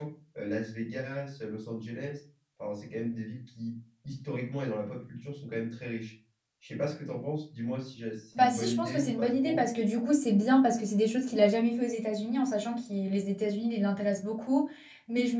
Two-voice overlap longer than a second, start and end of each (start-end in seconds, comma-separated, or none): 8.4-9.6